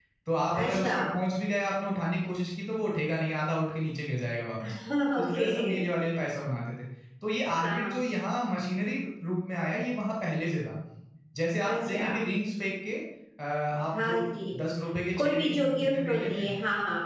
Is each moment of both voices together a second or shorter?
No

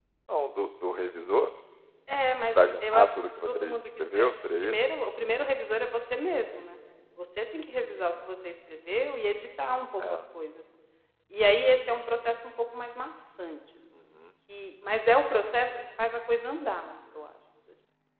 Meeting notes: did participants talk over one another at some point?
Yes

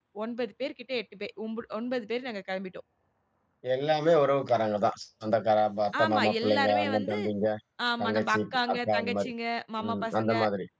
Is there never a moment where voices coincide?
No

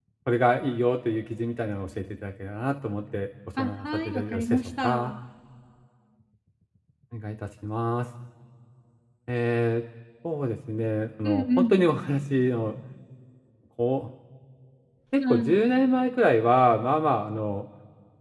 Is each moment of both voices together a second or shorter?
No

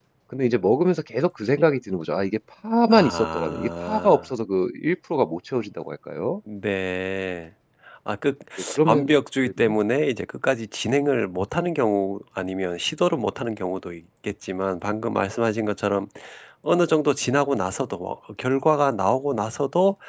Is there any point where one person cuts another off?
Yes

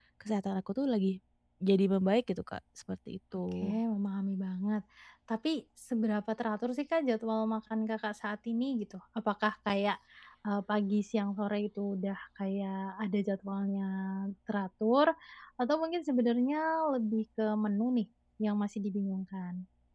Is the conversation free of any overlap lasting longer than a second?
Yes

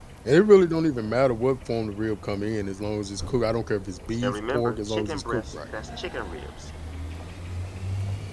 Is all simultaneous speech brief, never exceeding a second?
No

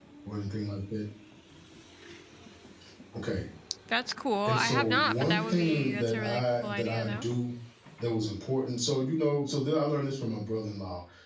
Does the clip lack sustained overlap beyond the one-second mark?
No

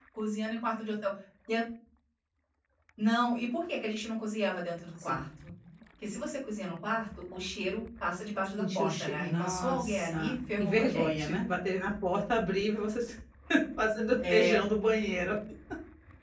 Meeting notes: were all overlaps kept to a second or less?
No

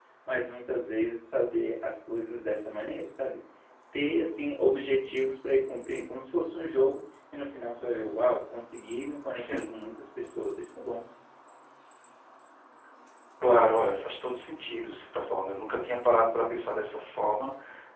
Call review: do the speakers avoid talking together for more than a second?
Yes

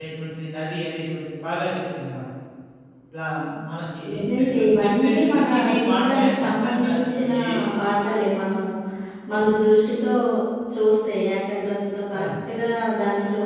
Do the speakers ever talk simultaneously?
Yes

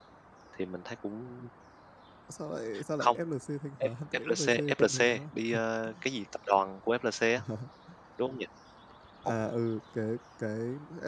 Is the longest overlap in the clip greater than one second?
Yes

